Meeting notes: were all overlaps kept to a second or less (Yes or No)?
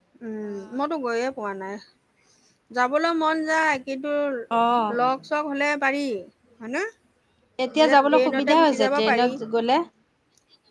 No